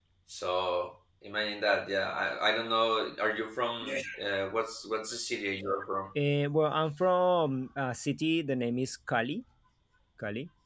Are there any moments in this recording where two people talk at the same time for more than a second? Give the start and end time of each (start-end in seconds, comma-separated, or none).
none